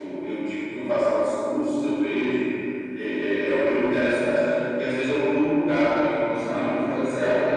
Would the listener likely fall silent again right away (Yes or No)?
No